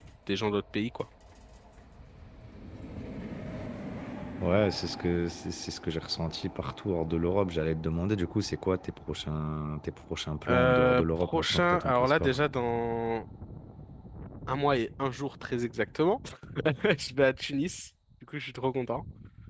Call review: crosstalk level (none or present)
present